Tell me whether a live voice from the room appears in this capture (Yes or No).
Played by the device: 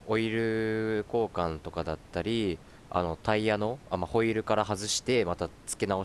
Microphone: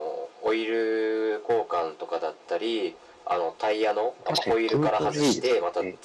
Yes